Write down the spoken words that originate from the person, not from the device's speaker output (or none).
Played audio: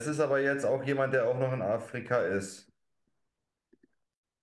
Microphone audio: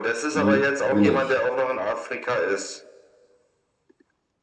die bin ich.